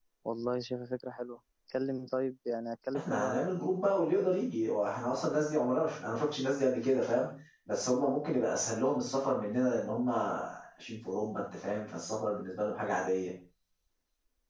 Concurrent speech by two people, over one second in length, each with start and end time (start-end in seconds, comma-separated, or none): none